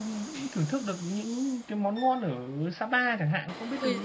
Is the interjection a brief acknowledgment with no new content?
No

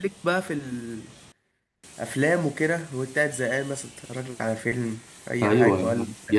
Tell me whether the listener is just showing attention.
No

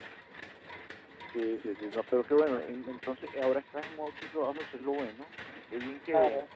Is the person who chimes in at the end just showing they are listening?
No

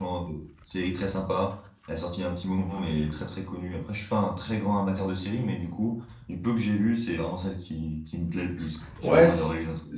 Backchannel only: No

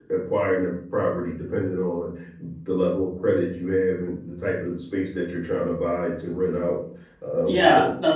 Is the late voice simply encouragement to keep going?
No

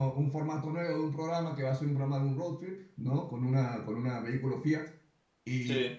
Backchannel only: Yes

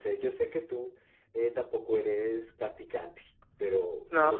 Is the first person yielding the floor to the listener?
No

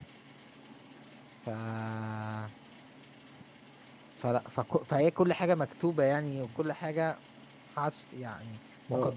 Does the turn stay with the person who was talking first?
No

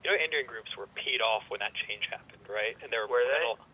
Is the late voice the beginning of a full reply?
No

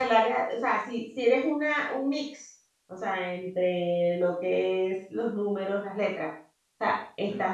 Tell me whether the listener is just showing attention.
Yes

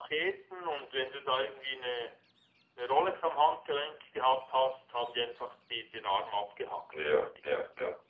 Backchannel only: No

